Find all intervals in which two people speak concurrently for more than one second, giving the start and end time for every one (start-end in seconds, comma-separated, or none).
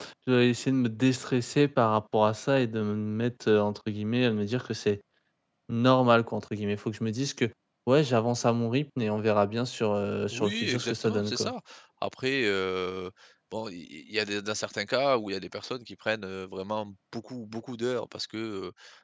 10.3-11.5